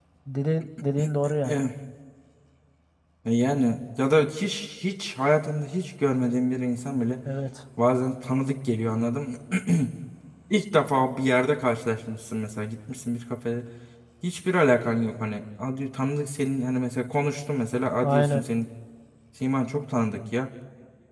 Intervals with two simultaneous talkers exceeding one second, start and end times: none

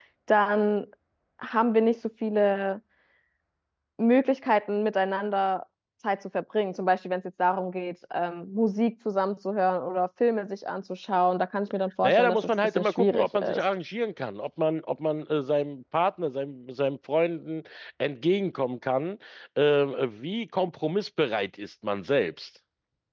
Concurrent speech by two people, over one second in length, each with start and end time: 12.0-13.6

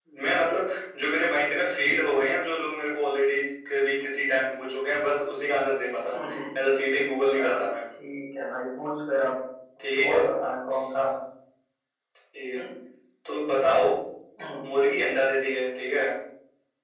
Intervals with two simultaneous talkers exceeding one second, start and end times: none

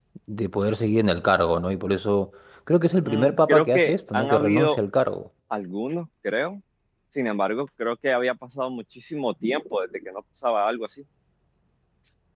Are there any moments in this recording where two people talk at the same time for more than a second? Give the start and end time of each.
3.0-4.8

